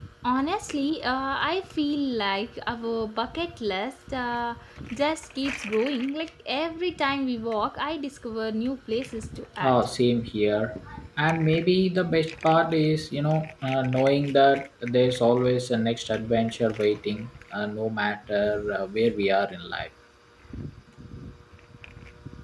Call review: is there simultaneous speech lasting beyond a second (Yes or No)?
No